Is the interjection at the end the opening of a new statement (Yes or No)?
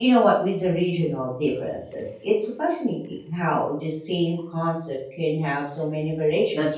Yes